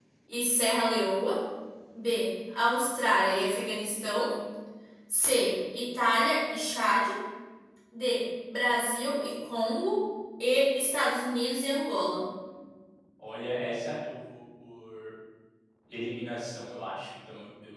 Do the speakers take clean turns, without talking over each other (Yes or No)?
Yes